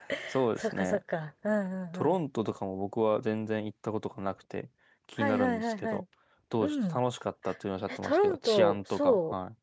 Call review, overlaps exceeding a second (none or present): present